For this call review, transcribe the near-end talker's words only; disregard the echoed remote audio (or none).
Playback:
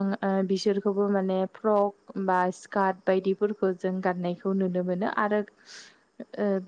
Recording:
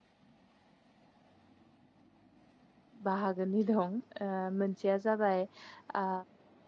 बाहागोनि दं मोनसेया जाबाय ओ